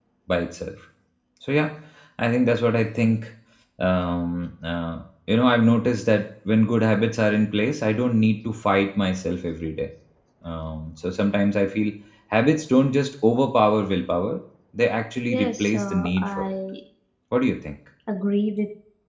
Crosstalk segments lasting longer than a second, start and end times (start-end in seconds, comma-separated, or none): 15.2-16.5